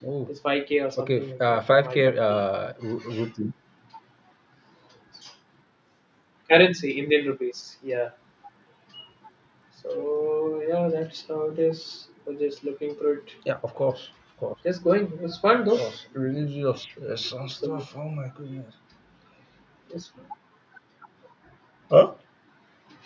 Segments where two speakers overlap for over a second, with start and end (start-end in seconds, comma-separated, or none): 1.0-2.2